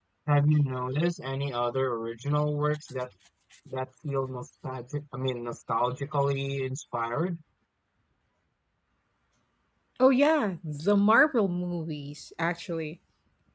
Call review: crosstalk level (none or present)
none